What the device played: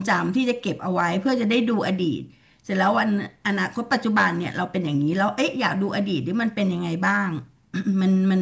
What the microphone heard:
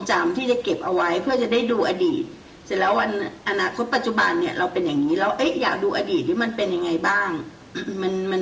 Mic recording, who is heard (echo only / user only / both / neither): echo only